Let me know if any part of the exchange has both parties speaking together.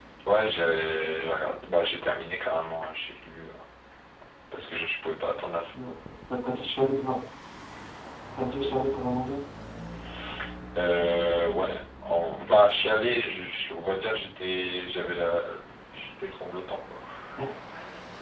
No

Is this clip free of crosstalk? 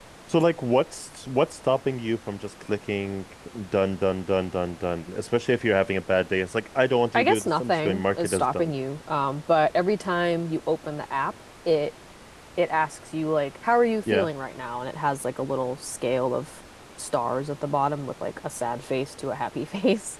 No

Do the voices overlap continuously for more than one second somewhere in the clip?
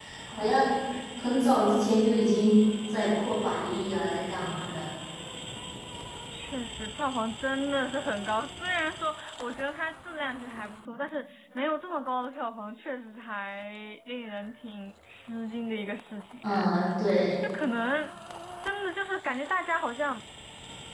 No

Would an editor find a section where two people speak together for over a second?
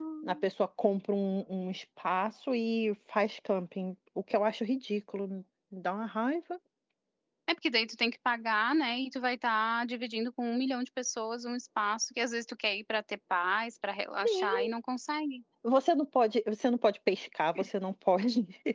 No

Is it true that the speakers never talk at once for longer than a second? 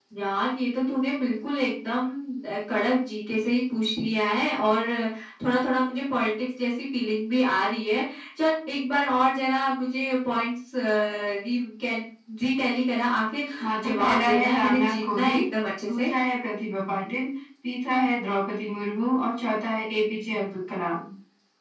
No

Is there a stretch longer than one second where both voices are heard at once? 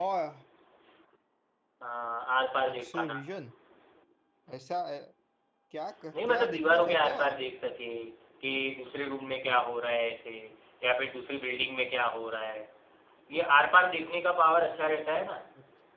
Yes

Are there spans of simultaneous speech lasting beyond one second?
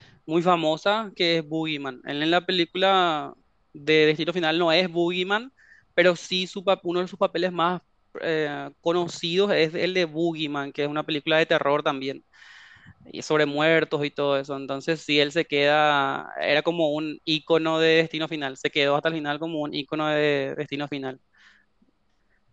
No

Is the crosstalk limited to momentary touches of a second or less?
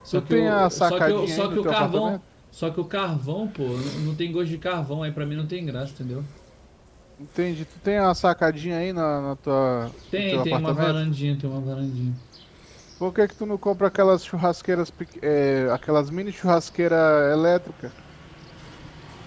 No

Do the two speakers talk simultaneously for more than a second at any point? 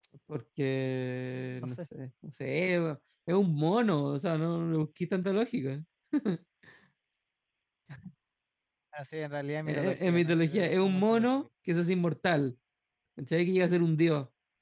Yes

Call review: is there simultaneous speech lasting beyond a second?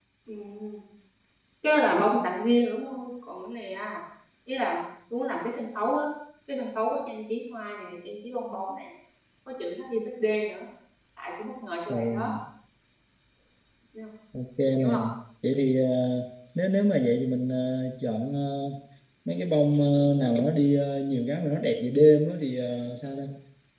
No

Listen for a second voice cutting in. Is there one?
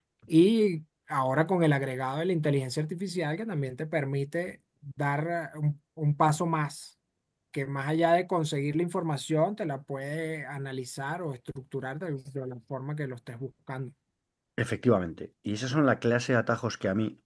No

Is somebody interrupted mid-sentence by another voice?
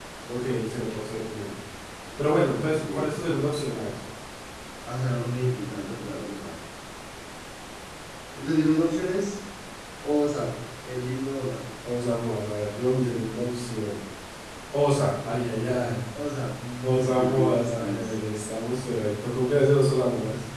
Yes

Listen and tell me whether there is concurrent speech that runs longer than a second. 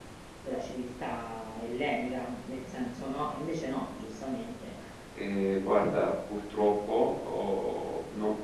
No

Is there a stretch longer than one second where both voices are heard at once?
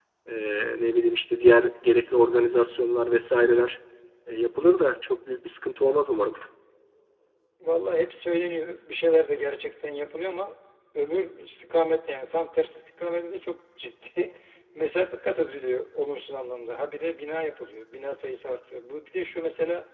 No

